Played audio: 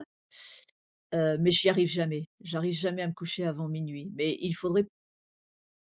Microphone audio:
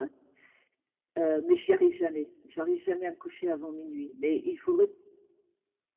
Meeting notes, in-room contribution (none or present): none